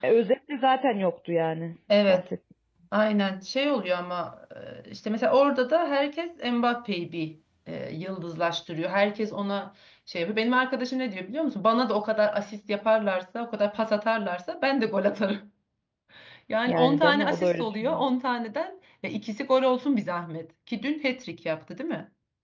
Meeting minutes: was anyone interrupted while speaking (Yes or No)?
Yes